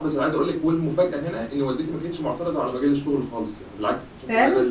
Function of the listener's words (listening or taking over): listening